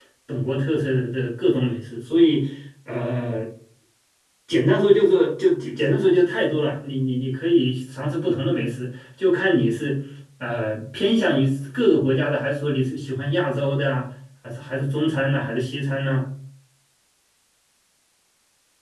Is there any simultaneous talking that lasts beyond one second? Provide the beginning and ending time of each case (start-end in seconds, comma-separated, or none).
none